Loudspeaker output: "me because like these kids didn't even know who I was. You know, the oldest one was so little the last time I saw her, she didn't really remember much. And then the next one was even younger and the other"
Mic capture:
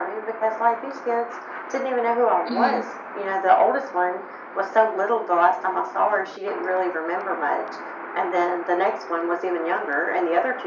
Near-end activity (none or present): present